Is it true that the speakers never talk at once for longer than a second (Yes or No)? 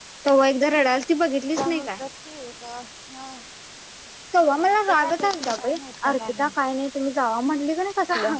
No